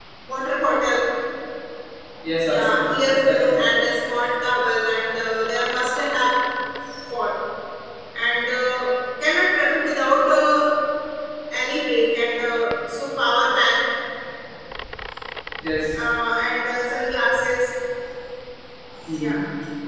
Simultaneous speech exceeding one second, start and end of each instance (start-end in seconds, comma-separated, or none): 2.4-3.8